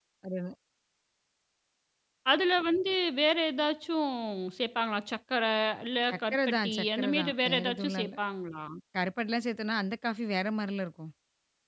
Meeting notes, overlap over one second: present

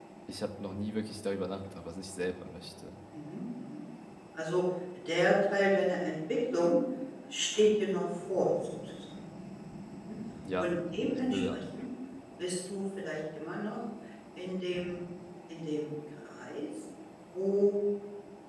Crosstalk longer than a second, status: none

